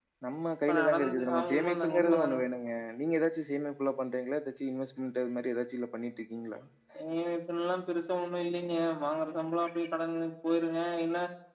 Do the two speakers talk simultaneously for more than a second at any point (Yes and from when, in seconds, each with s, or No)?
Yes, from 0.7 s